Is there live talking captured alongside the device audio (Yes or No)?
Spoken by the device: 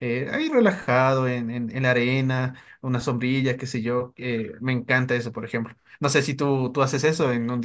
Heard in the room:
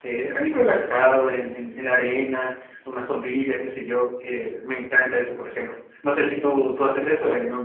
No